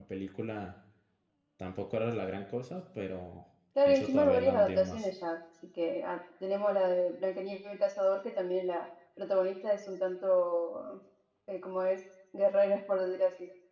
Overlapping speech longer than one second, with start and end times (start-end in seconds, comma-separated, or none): 3.9-5.1